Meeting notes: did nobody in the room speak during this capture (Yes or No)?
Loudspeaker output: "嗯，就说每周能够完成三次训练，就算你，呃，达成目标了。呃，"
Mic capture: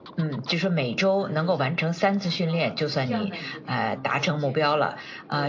No